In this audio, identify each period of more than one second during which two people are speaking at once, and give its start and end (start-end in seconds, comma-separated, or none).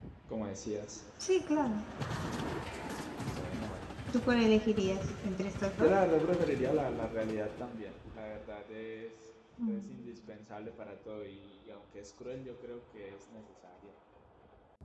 none